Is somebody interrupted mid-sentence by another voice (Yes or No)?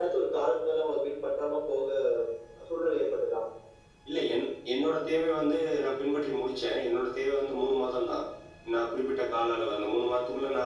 No